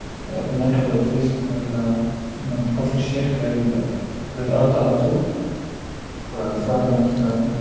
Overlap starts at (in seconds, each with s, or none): none